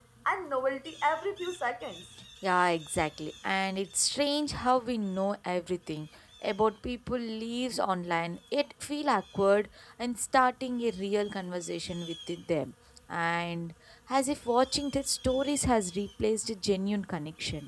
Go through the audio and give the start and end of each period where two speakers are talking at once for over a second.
none

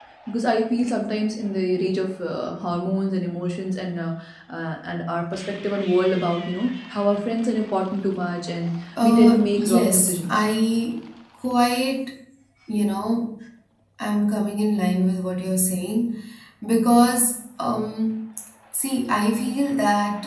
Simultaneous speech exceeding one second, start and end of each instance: 9.0-10.4

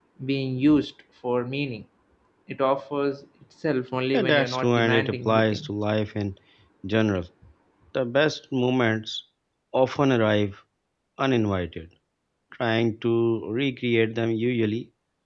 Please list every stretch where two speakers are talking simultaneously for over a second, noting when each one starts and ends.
4.1-5.7

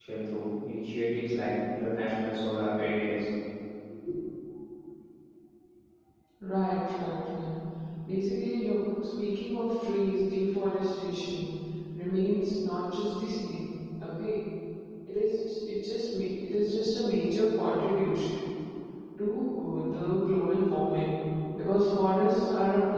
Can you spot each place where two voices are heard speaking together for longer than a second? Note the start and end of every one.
none

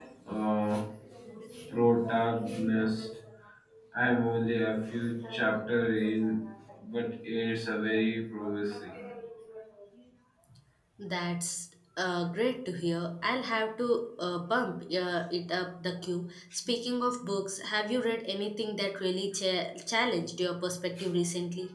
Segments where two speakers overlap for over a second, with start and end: none

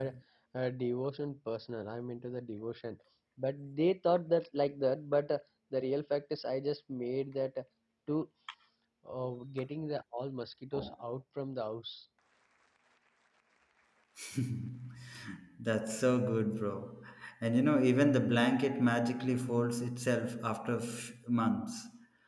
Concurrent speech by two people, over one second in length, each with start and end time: none

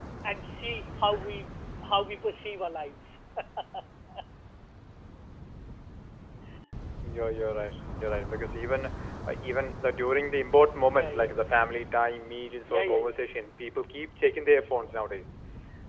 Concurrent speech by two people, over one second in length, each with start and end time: none

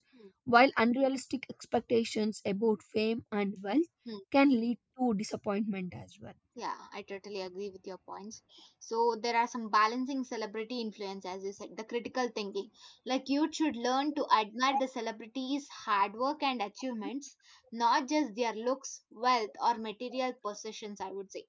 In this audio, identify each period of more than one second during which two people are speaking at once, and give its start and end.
none

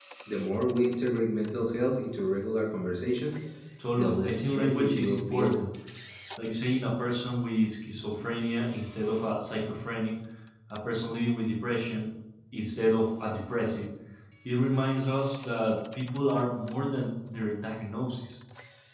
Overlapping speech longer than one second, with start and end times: 4.0-5.5

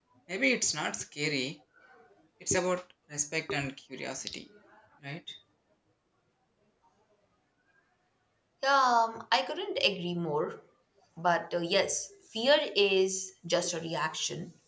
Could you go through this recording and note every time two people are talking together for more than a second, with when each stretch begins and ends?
none

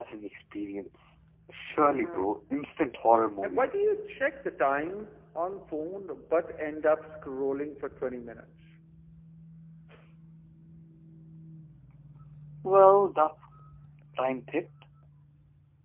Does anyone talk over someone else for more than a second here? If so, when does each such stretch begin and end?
none

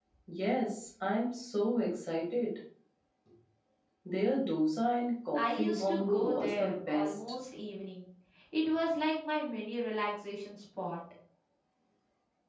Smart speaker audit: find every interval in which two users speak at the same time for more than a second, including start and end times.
5.3-7.2

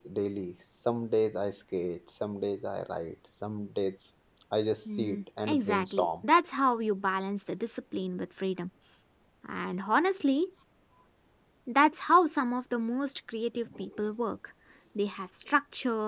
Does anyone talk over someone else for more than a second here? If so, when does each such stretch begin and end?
4.8-6.1

